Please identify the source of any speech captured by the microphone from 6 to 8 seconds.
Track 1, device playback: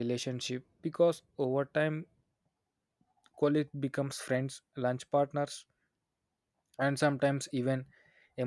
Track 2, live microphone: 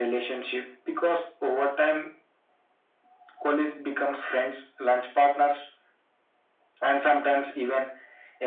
echo only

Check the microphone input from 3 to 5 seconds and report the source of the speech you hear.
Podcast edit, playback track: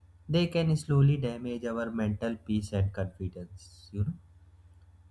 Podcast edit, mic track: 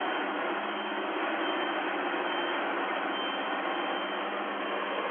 neither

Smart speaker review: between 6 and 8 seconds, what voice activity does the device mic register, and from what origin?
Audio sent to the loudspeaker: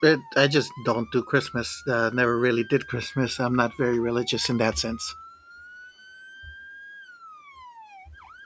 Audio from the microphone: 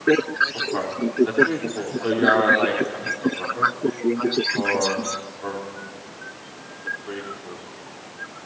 user only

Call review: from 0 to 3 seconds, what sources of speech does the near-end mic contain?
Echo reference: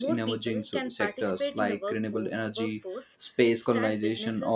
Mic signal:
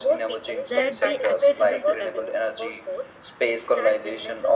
both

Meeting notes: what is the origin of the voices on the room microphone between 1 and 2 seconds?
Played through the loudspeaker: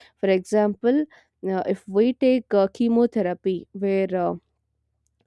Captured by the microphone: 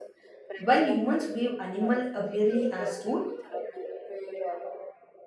both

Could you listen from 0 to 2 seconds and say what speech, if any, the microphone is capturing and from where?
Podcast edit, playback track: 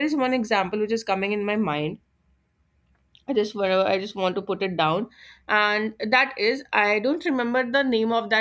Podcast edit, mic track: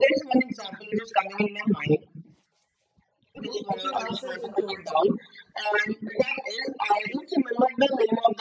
echo only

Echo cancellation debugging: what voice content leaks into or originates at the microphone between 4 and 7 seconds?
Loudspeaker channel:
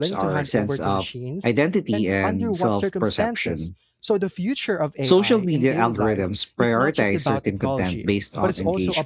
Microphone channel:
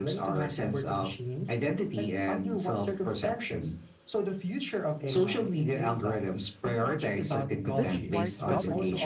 echo only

